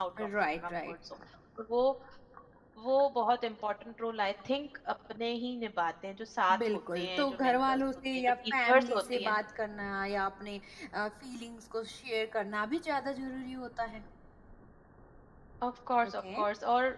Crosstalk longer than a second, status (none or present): present